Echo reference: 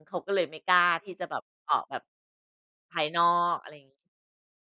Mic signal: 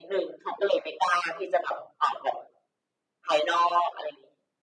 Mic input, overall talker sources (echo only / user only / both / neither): echo only